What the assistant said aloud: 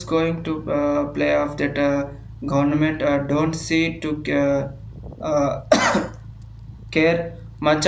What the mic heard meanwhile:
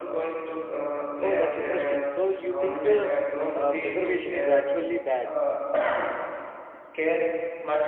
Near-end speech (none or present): present